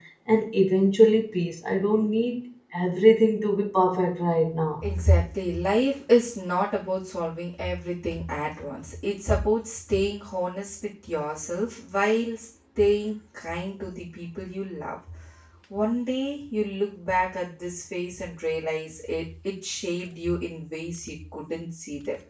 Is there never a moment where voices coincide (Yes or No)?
Yes